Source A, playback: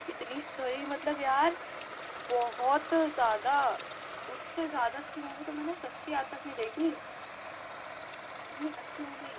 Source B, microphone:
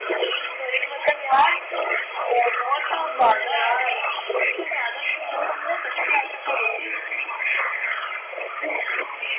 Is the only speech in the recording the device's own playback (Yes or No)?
No